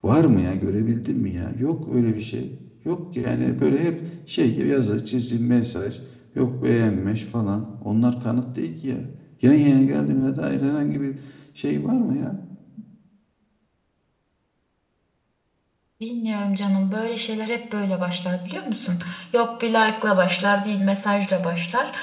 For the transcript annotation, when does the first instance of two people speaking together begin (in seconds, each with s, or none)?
none